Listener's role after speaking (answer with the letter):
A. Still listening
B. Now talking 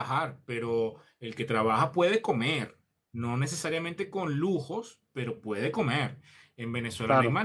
A